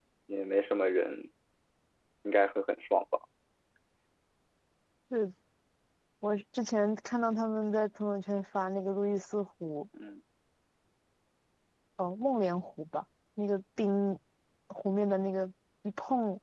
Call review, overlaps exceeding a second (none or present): none